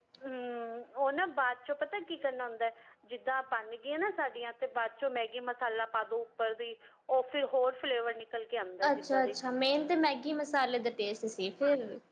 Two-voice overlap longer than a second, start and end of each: none

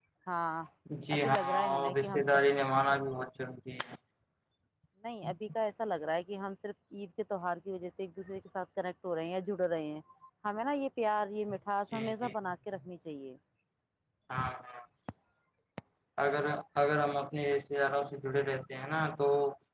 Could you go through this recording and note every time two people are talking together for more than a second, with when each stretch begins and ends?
1.2-2.4

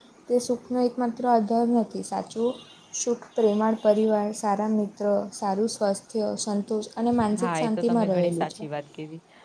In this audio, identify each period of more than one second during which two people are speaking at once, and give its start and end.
7.3-8.5

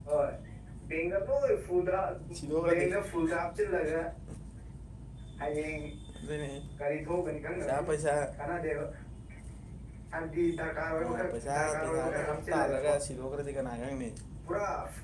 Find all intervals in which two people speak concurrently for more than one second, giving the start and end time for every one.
11.0-12.9

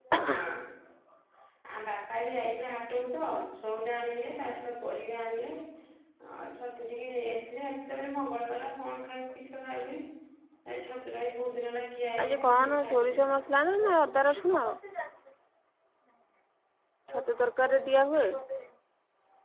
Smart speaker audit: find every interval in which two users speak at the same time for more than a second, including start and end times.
12.2-13.4

